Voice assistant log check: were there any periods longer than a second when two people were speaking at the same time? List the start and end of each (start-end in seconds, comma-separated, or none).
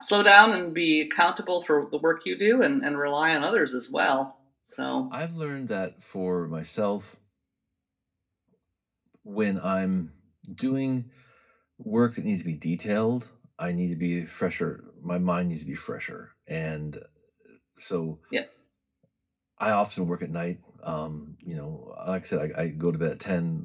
none